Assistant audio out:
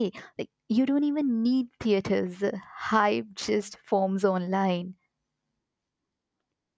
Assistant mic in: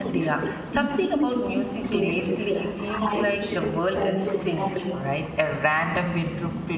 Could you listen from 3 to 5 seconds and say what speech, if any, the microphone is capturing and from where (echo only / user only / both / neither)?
both